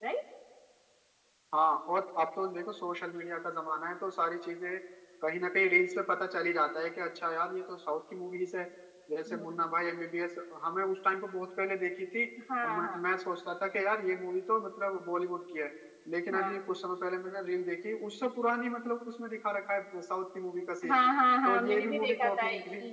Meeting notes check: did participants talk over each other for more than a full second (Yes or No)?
Yes